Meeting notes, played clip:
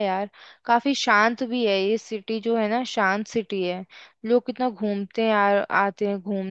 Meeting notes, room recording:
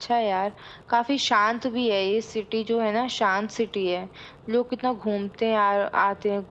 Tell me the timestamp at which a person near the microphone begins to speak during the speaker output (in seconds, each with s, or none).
none